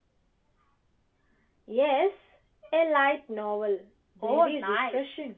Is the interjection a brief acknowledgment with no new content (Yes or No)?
No